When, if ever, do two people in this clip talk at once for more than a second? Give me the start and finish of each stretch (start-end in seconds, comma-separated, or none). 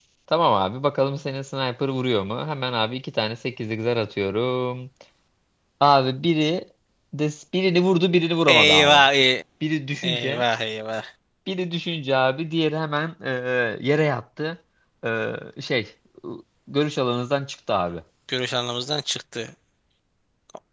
none